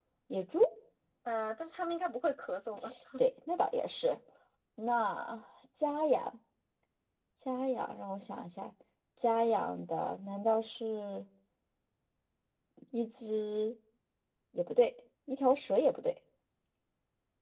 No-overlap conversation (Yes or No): Yes